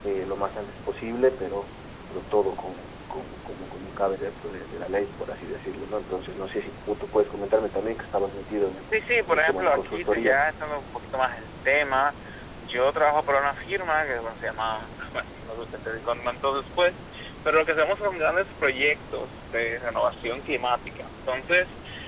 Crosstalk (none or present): present